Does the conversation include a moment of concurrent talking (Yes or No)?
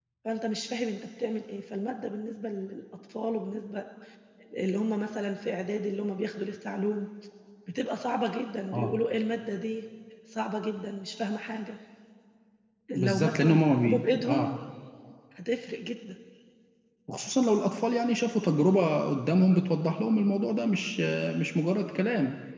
Yes